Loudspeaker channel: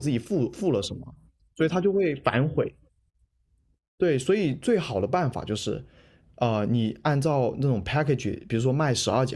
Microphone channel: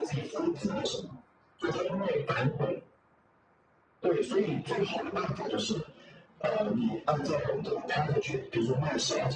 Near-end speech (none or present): none